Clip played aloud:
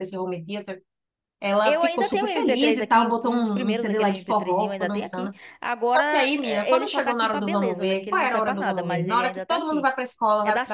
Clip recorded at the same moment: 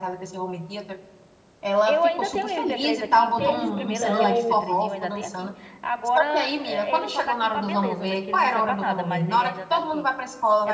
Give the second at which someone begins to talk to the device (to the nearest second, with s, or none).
3 s